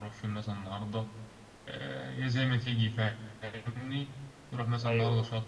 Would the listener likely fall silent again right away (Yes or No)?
Yes